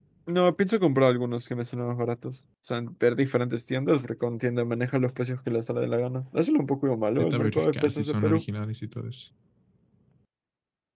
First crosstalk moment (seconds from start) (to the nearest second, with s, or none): 7 s